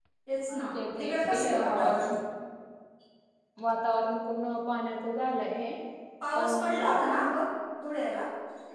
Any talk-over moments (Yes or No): Yes